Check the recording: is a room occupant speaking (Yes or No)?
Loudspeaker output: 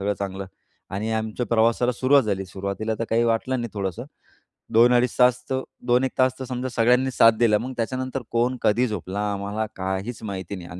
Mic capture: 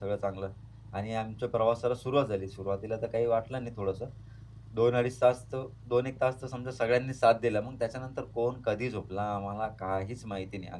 No